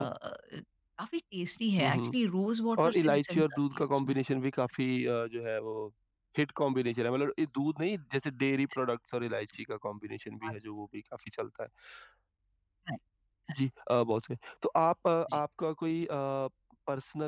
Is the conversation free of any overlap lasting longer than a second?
No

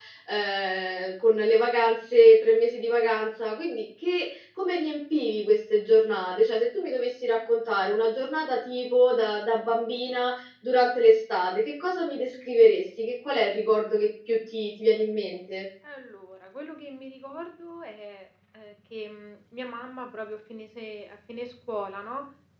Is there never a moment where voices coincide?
Yes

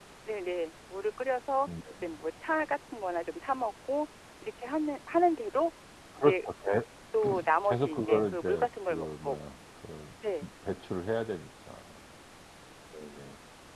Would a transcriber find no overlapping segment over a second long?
No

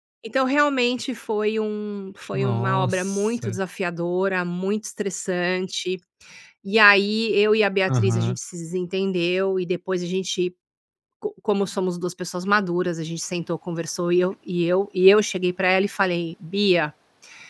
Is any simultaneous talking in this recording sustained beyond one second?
Yes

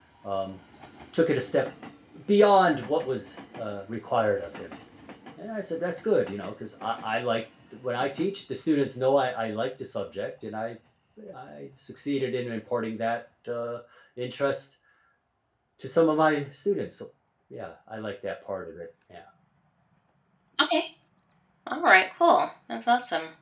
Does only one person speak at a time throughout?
Yes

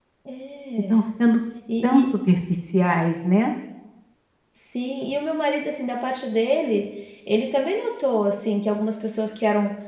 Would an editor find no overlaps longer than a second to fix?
Yes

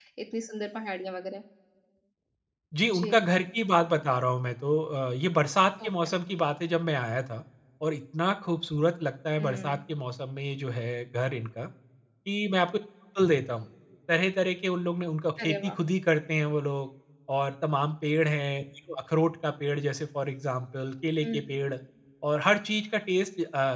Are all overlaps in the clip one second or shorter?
Yes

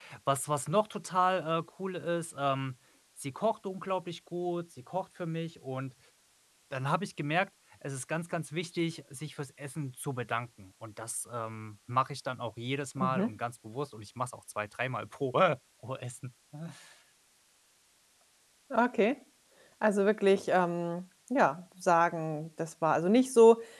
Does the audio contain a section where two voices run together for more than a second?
No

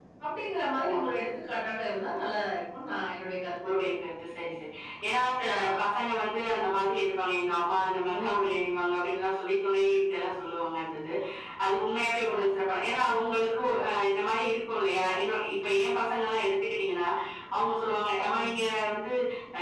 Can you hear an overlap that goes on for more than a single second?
No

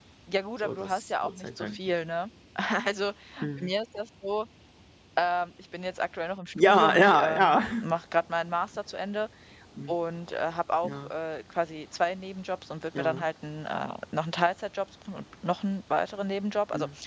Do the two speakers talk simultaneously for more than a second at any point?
Yes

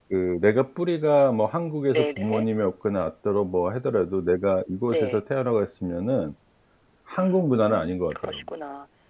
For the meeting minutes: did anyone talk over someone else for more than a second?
Yes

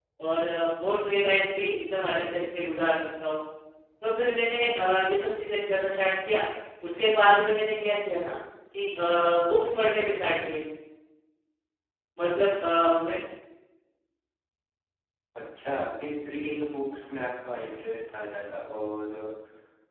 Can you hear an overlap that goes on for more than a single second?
No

